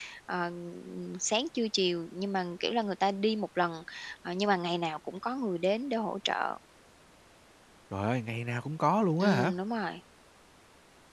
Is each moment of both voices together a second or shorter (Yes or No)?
Yes